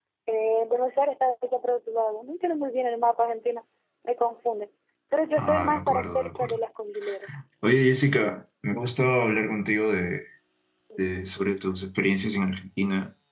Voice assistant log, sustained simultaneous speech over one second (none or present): present